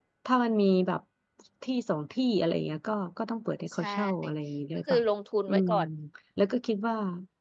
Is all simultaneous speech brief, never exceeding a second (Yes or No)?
Yes